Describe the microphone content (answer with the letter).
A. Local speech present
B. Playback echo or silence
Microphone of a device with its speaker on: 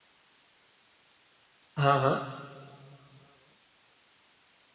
A